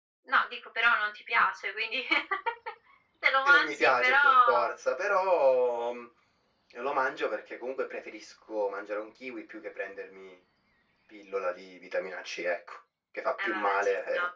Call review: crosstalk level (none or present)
present